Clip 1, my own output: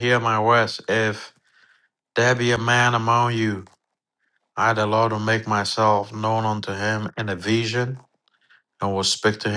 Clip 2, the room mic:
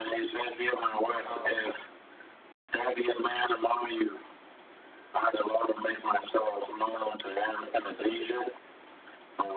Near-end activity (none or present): present